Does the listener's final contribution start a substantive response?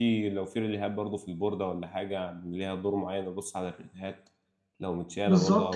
Yes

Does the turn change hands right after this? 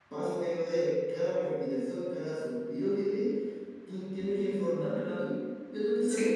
No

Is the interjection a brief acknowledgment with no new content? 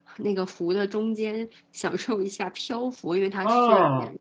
No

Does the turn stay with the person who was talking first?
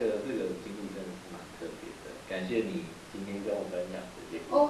No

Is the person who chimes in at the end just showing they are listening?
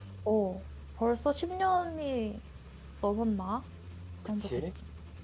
No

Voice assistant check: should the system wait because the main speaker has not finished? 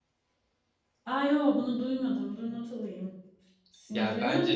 No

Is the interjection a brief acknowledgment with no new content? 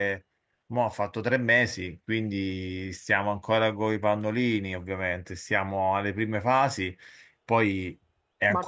No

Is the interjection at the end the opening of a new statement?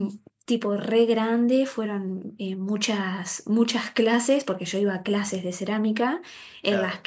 No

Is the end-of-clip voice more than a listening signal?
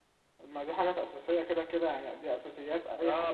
Yes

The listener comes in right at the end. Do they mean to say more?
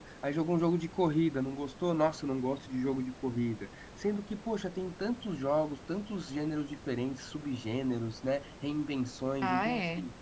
No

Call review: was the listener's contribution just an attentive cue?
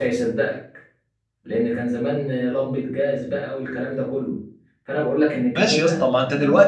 No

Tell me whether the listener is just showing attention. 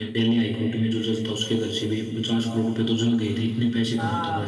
No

